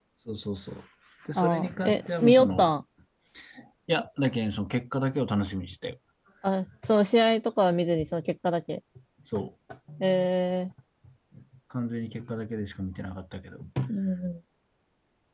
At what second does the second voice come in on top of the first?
1 s

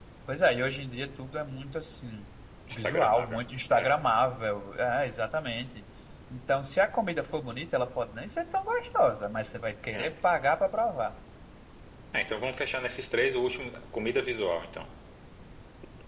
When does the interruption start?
3 s

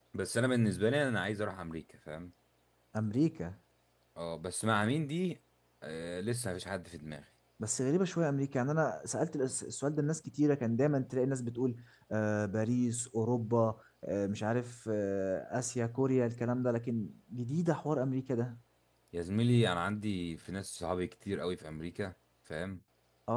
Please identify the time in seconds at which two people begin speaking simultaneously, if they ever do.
none

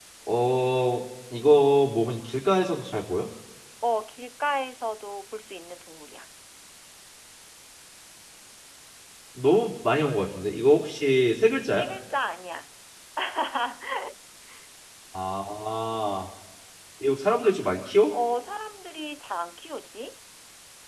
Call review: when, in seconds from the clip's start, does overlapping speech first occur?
none

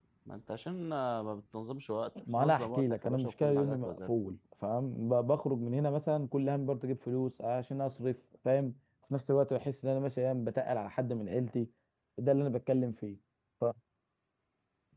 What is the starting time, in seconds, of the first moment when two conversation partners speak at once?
2 s

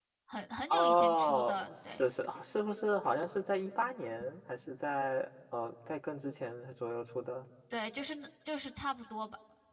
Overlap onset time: 1 s

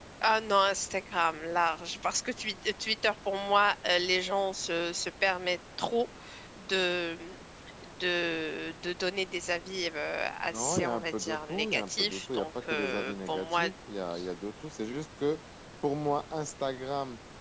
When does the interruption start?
10 s

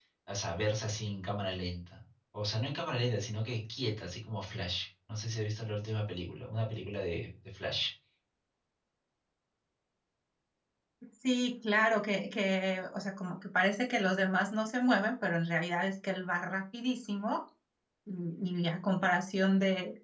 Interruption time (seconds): none

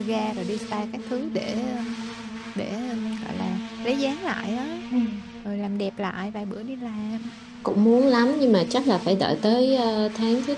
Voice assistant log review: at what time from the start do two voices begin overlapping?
none

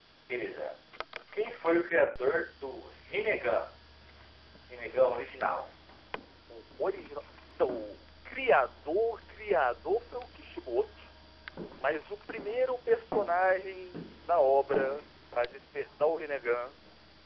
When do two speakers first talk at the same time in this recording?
none

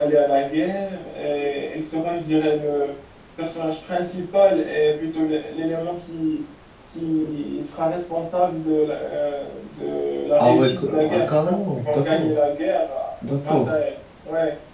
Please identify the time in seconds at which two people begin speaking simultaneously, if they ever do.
10 s

